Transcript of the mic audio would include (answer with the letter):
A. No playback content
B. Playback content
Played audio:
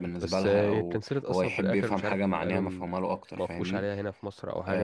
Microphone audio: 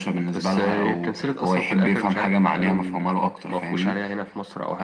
B